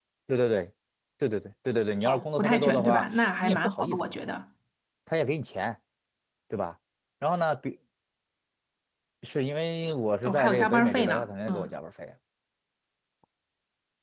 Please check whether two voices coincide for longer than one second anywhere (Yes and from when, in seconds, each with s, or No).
Yes, from 2.0 s